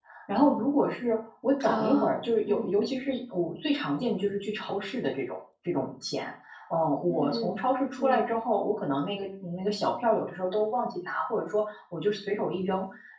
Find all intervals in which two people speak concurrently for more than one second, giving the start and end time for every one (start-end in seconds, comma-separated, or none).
none